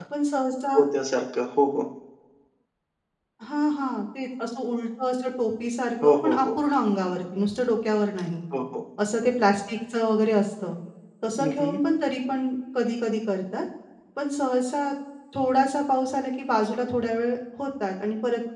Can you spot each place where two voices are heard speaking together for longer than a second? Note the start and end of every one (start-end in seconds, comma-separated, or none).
none